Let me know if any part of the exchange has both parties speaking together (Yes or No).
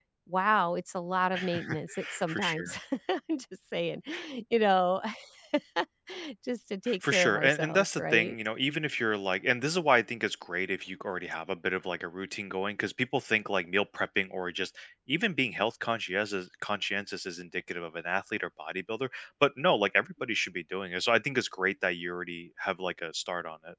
Yes